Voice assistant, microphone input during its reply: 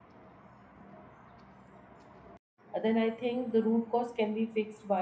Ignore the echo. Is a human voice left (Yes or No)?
Yes